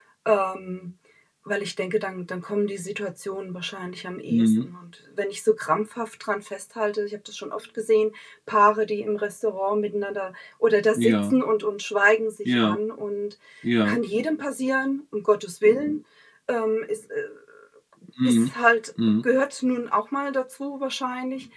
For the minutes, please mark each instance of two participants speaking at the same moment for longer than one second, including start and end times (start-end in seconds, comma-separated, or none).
none